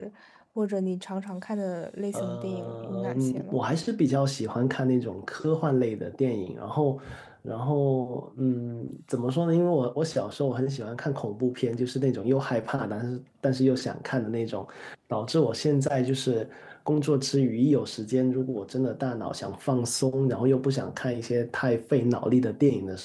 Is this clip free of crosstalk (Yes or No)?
No